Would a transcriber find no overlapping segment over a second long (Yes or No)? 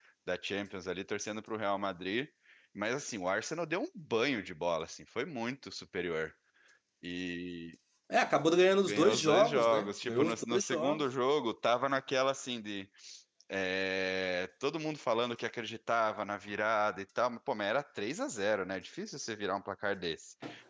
No